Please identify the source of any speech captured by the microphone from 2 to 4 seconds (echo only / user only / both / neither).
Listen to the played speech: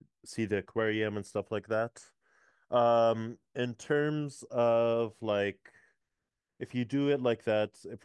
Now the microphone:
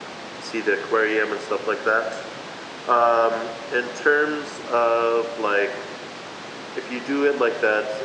echo only